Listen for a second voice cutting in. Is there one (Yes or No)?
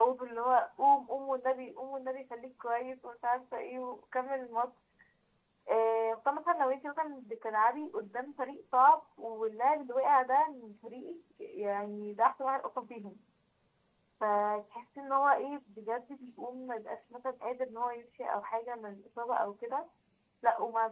No